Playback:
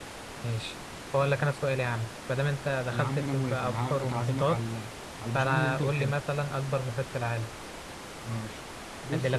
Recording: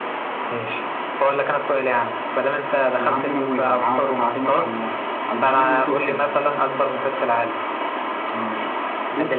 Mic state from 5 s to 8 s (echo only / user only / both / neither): echo only